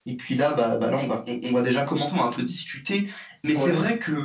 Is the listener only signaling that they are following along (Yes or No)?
Yes